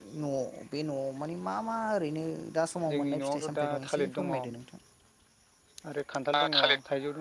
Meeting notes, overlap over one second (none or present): present